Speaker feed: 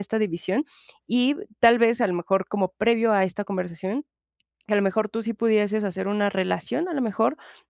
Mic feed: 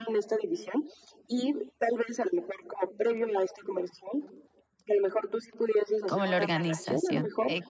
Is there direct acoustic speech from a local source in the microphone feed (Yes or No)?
Yes